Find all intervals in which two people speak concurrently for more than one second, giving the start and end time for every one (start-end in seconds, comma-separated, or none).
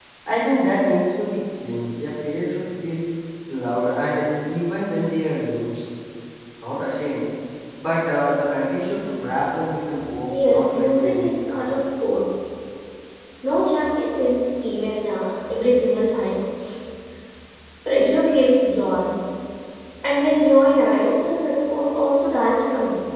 10.3-11.8